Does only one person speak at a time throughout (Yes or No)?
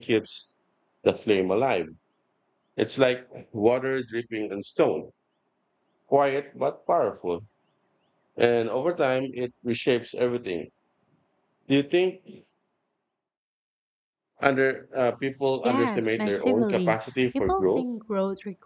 No